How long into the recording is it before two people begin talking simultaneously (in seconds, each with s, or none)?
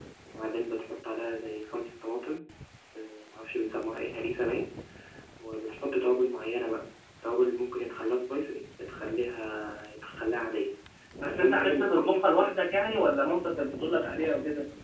11.2 s